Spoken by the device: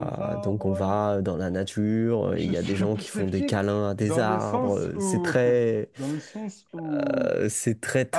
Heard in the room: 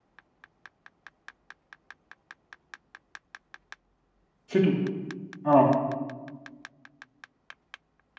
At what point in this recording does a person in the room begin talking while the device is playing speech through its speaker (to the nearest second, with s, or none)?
4 s